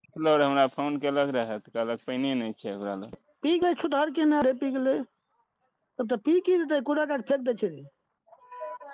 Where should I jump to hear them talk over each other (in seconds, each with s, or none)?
none